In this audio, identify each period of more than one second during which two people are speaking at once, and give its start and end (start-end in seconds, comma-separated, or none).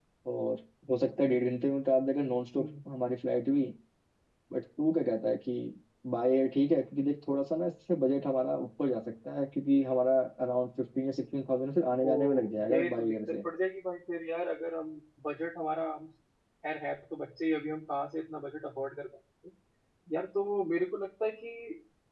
12.0-13.4